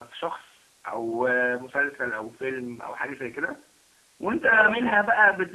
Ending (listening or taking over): listening